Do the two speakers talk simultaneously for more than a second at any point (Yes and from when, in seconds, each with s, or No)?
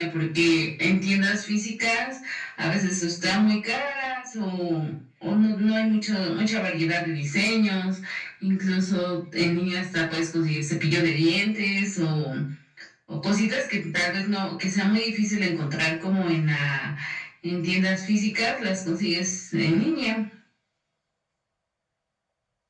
No